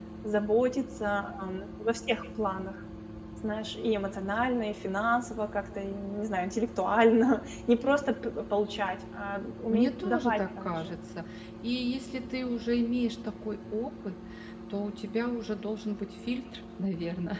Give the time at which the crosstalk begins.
9.7 s

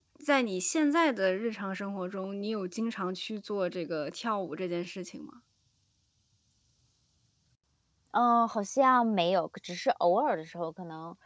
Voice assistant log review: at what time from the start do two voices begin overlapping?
none

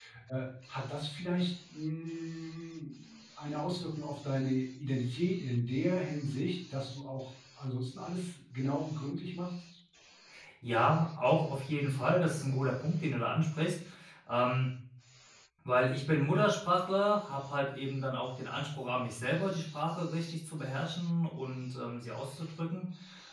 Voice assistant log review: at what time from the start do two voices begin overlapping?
none

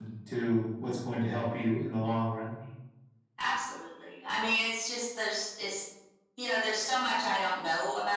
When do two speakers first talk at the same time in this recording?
none

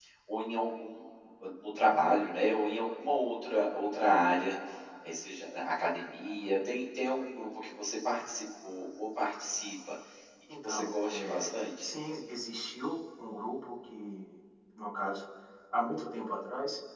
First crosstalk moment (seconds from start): 10.6 s

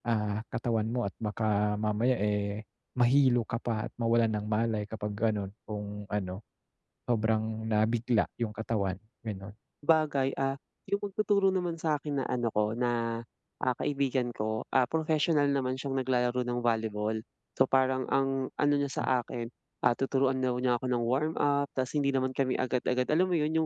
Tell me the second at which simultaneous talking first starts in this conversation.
none

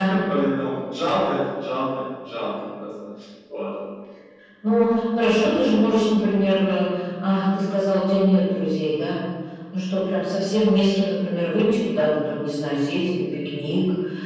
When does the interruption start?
none

